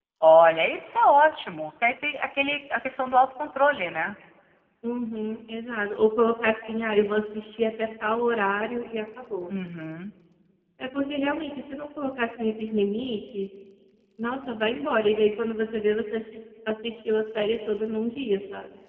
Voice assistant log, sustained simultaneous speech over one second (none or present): none